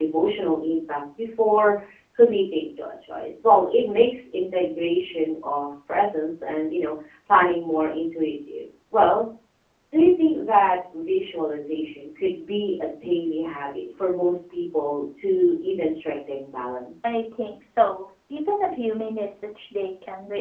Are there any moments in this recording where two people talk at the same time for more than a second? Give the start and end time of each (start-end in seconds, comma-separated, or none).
none